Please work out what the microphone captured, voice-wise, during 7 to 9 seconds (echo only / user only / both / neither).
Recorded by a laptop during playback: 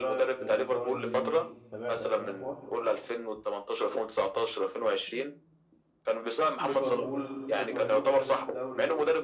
both